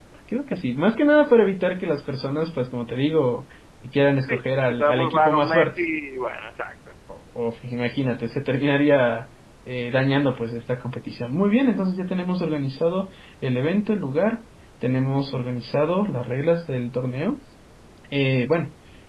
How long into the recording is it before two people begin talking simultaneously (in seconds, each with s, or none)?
4.2 s